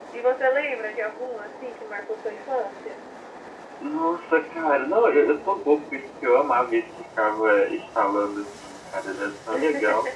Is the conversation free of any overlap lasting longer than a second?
Yes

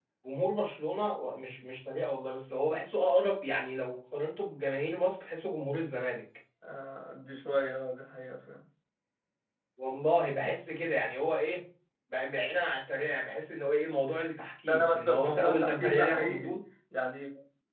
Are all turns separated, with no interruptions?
No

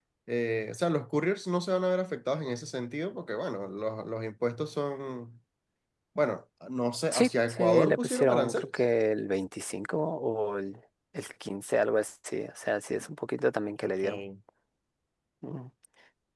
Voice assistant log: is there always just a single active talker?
No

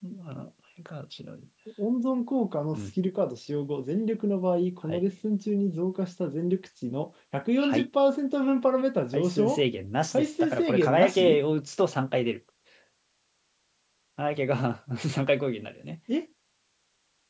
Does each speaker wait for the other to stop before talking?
No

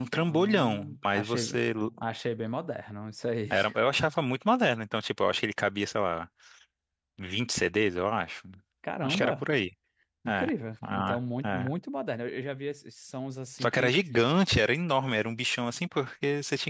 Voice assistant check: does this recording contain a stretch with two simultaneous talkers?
Yes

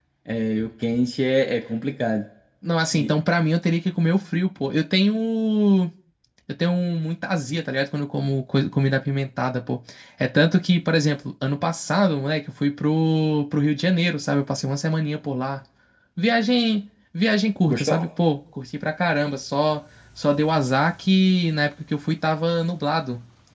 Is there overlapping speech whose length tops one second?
No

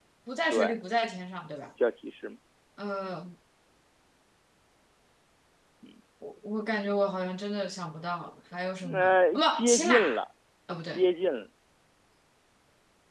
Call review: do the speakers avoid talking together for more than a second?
No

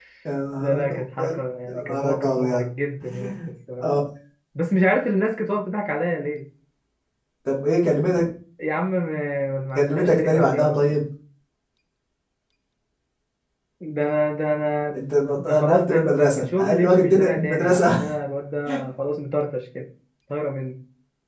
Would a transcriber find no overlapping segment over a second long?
No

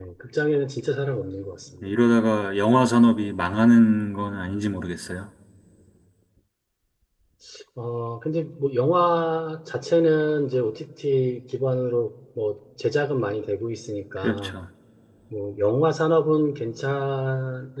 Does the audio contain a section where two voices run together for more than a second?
No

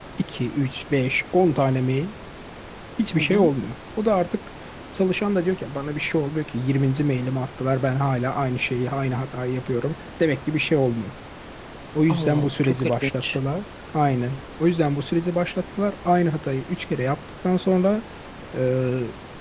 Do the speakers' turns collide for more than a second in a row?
Yes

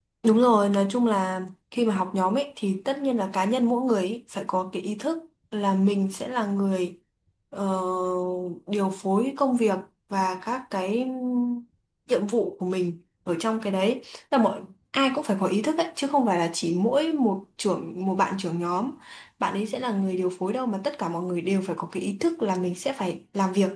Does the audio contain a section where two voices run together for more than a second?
No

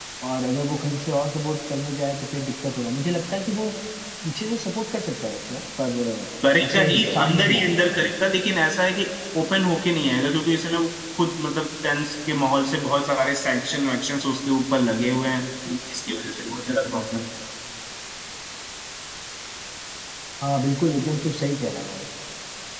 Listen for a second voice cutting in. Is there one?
Yes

